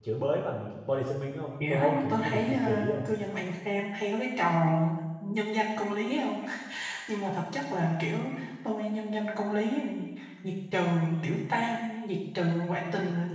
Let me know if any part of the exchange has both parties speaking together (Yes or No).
Yes